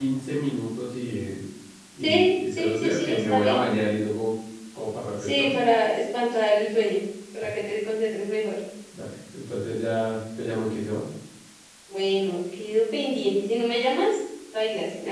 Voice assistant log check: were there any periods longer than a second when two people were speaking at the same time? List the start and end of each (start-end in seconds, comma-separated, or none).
2.0-3.6